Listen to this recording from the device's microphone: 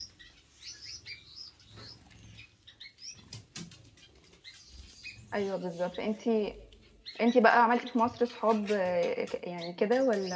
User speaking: Yes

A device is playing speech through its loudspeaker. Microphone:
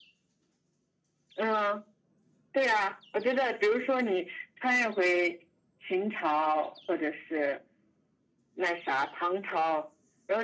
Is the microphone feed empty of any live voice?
Yes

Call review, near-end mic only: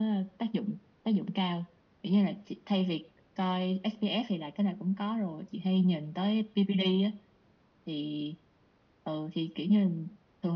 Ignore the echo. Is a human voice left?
No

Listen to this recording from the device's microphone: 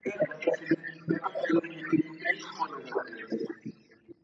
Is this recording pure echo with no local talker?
Yes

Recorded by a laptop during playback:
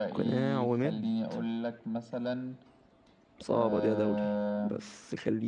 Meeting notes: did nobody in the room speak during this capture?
No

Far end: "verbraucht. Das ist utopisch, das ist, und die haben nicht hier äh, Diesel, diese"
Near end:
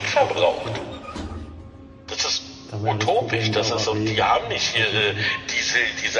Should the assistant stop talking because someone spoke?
Yes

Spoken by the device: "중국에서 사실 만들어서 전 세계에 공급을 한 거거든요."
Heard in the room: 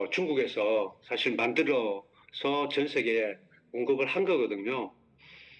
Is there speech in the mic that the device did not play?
No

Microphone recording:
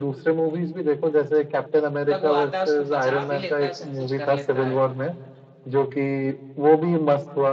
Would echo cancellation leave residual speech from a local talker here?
Yes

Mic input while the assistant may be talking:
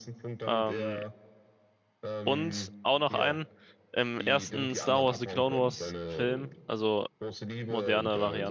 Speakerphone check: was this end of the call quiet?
No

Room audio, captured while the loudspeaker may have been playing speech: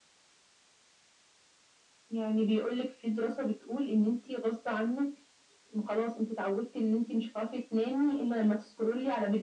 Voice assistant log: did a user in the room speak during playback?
No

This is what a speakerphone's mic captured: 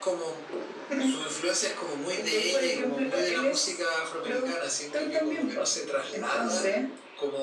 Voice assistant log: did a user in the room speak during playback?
No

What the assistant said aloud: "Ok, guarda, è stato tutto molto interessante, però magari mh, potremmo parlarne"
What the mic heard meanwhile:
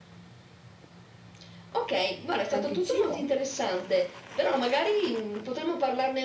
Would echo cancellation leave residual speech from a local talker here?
Yes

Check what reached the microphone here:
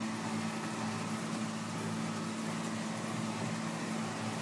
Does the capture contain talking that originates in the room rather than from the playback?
No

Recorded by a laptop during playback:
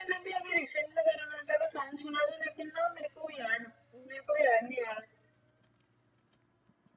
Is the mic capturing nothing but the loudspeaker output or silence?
Yes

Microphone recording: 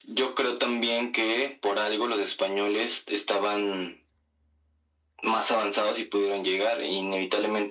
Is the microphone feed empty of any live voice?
Yes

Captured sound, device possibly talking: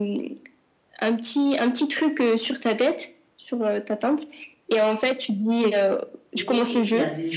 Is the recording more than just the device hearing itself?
Yes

